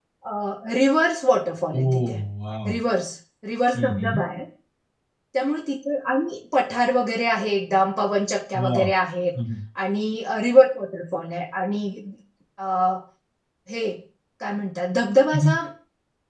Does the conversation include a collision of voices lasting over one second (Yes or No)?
No